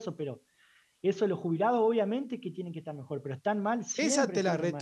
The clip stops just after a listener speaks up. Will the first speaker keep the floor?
No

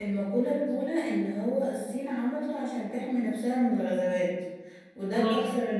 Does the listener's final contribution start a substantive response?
No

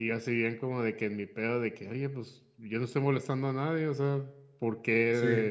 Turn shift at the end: No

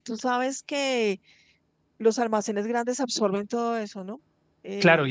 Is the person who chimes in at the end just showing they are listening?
No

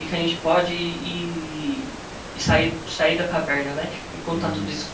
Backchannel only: Yes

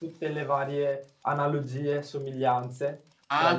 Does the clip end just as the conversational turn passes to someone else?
Yes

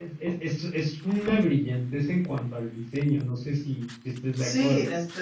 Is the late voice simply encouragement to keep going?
No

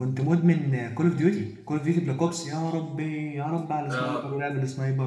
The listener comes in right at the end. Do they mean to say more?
No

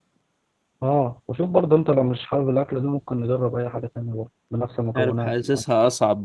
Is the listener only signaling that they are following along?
No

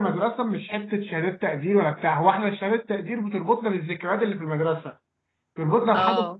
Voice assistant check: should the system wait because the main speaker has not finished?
Yes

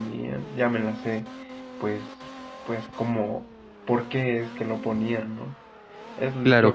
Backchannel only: No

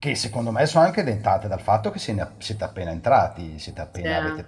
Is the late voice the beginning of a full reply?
No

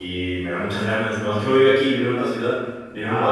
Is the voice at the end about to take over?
No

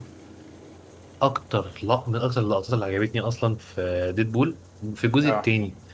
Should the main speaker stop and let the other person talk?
No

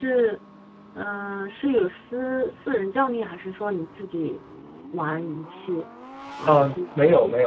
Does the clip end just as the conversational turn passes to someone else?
Yes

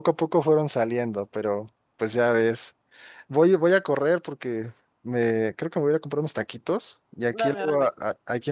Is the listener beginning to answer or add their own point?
No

